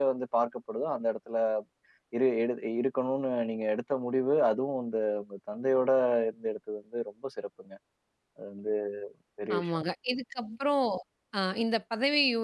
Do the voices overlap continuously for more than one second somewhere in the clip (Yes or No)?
No